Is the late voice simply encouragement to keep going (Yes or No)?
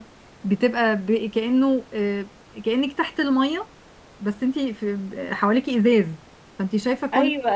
No